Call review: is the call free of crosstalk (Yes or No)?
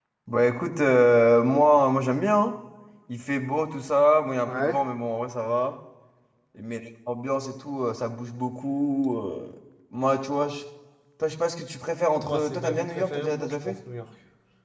No